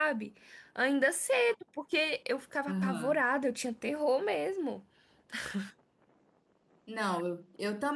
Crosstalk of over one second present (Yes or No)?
No